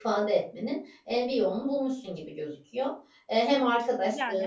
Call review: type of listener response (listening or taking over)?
listening